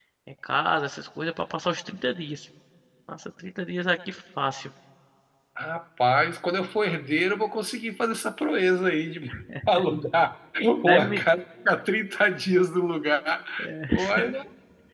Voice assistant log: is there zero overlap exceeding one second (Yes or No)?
Yes